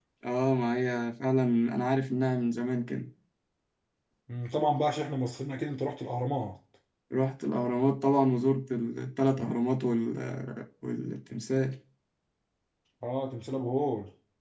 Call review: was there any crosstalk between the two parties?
No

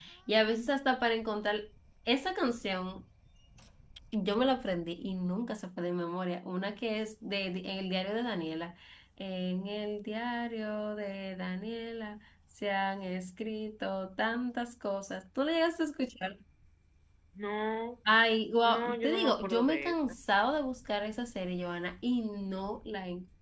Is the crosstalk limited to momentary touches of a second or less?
No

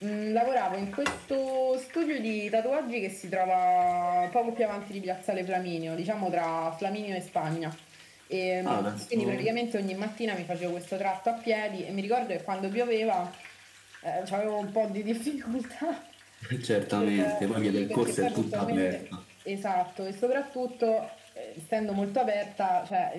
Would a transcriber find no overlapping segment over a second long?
No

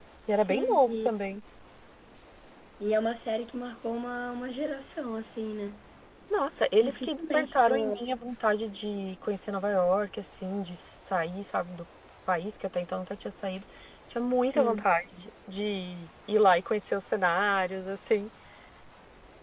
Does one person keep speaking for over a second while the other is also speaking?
Yes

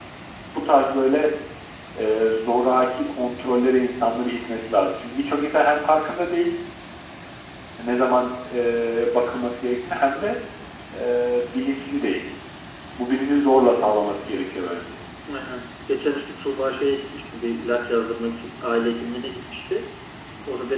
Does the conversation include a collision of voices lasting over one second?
No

